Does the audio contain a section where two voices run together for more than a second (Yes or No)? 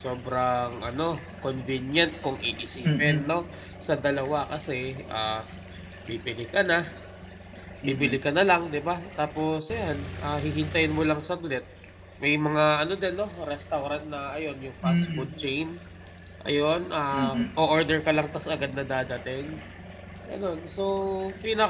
No